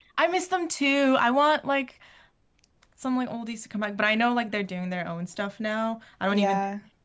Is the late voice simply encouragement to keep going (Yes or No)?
Yes